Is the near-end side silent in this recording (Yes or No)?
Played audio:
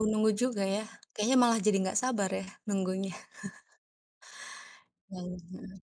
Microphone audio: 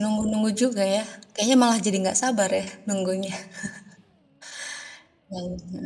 Yes